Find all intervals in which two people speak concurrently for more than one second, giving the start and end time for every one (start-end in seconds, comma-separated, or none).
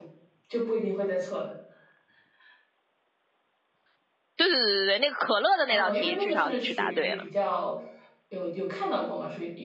5.7-7.2